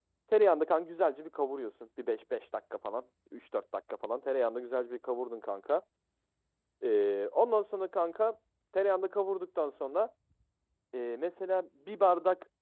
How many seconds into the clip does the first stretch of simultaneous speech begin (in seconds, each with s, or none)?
none